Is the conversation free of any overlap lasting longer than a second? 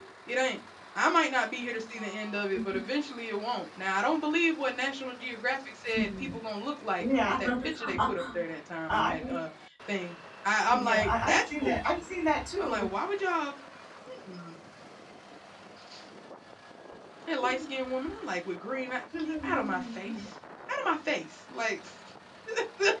No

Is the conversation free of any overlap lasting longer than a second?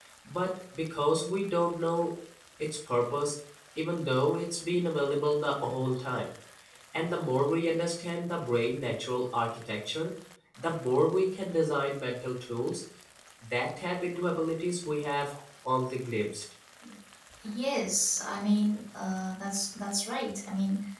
Yes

